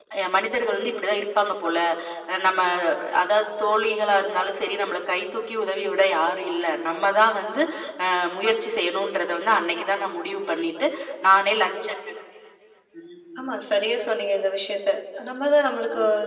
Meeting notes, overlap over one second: none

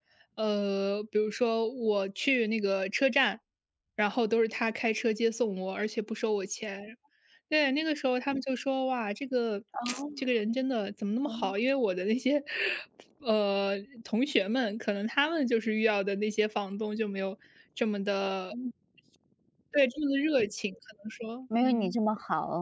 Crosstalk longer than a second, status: none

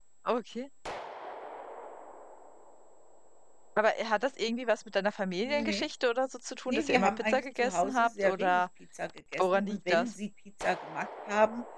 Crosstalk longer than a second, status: present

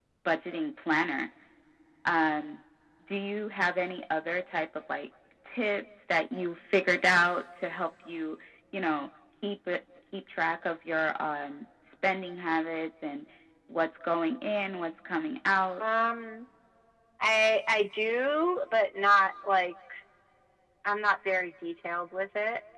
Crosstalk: none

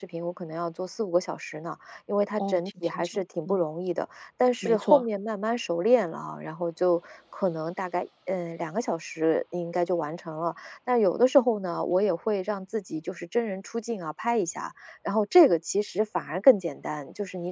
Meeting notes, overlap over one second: present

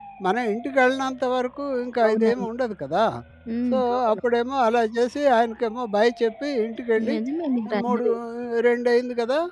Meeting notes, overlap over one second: none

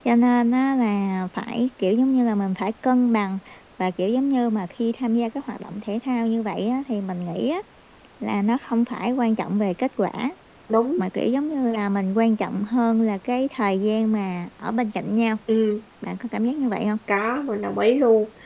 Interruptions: none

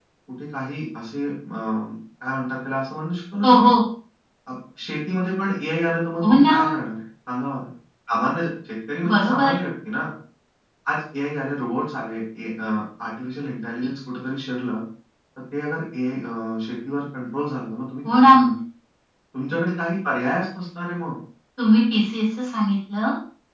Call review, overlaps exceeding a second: none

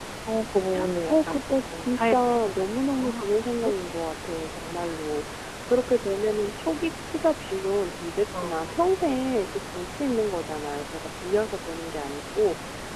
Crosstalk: present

